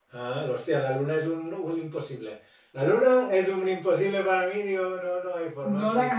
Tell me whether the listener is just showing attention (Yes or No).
No